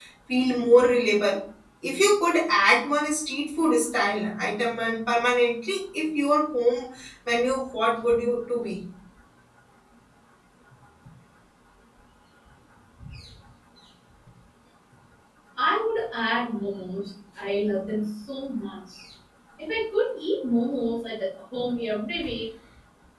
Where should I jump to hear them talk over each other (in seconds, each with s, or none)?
none